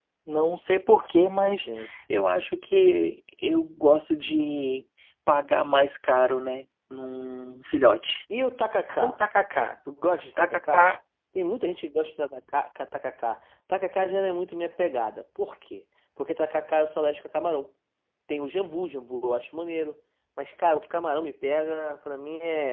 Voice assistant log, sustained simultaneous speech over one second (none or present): none